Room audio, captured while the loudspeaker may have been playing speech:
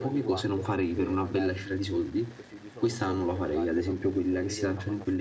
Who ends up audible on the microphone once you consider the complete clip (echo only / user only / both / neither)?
both